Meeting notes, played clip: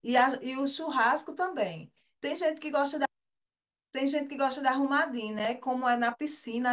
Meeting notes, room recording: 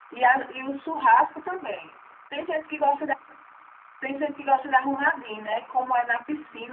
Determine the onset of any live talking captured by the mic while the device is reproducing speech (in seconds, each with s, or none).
none